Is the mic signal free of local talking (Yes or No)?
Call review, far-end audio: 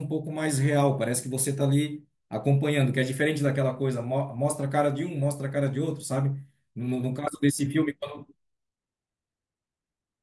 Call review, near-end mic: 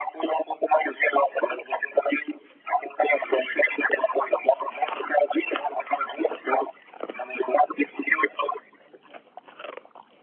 Yes